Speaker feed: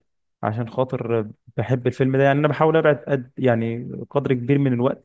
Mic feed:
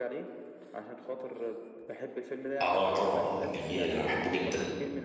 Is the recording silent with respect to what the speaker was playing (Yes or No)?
No